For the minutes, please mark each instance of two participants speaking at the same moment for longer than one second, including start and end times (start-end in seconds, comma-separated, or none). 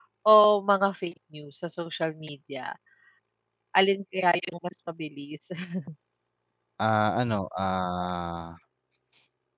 none